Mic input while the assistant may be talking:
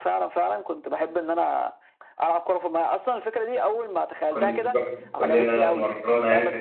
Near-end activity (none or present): present